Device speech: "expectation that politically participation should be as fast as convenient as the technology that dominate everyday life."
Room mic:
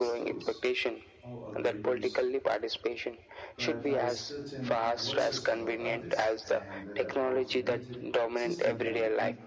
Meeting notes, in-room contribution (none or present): present